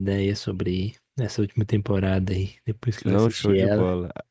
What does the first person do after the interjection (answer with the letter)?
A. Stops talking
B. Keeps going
A